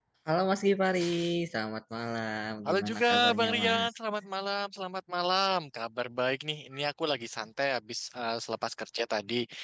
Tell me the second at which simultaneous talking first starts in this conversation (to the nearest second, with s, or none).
3 s